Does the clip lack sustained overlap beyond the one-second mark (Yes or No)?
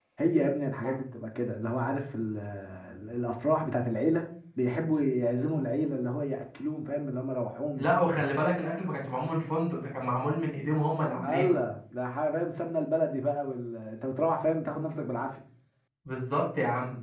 Yes